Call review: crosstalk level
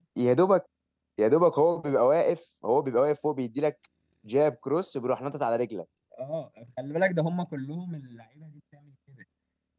none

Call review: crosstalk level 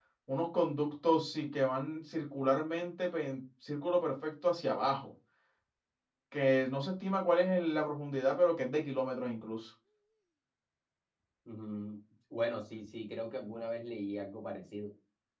none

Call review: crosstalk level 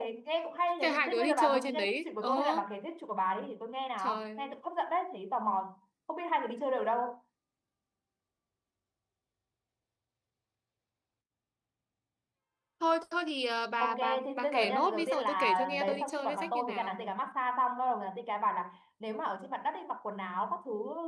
present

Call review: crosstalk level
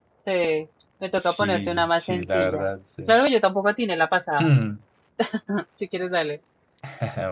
present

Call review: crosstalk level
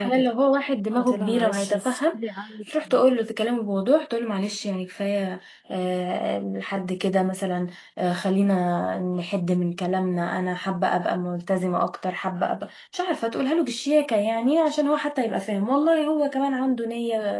present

